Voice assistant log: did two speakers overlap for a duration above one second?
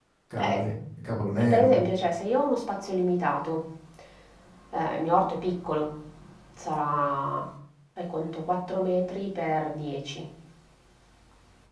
No

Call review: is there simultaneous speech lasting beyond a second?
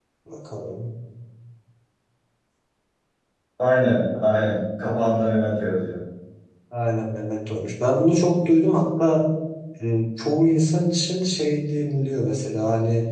No

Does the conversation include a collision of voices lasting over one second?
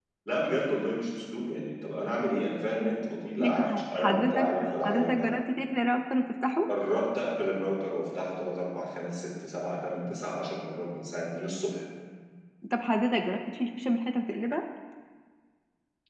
Yes, from 3.4 s

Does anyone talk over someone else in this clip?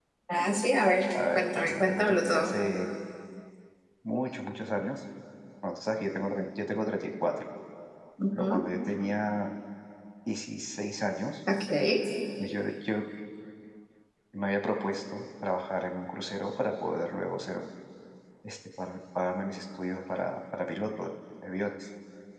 Yes, from 1.1 s

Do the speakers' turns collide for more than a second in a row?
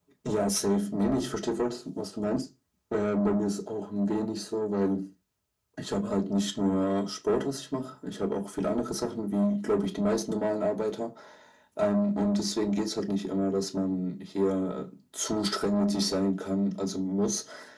No

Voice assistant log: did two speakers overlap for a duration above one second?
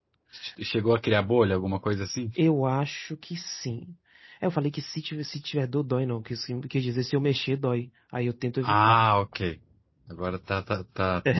No

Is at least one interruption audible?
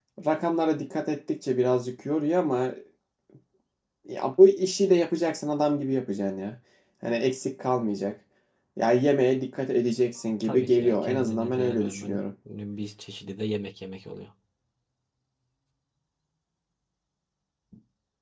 Yes, from 10.4 s

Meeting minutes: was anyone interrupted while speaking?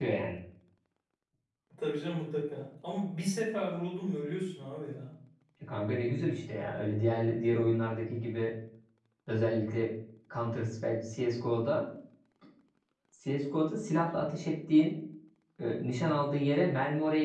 No

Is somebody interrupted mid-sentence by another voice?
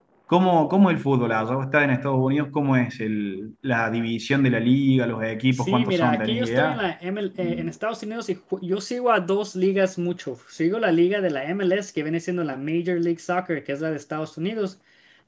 Yes, from 5.5 s

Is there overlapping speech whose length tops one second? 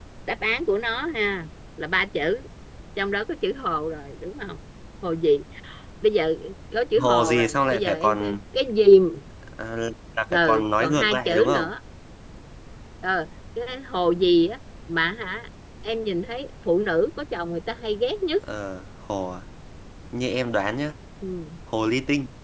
Yes, from 7.0 s

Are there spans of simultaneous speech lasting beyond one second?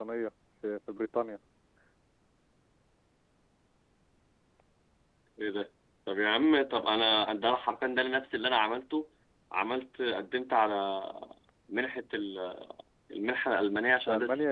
No

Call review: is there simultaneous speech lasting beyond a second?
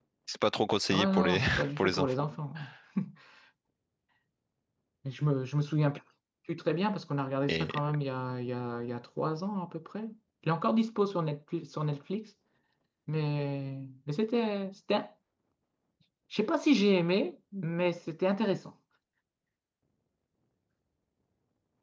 Yes, from 0.9 s

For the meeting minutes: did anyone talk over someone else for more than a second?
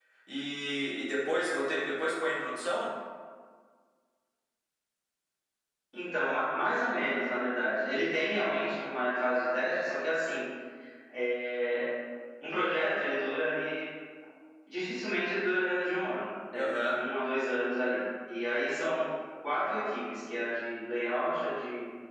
No

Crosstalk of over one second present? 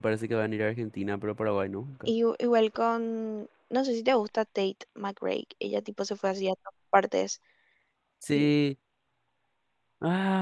No

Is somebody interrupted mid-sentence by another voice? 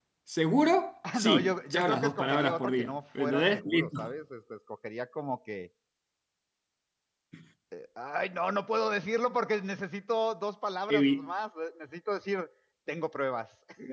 Yes, from 1.1 s

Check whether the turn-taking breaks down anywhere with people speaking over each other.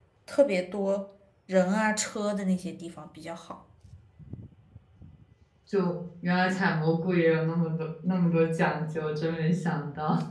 No

